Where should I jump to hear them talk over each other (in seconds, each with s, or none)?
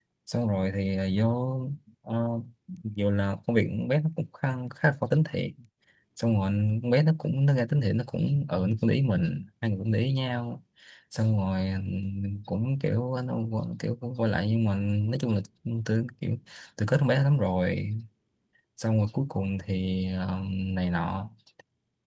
none